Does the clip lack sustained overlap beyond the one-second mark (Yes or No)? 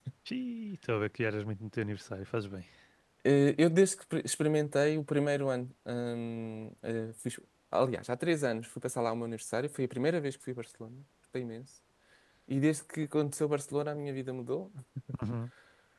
Yes